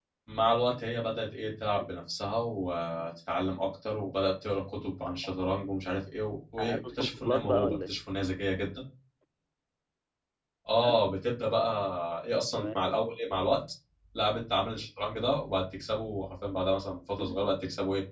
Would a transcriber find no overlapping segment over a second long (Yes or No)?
No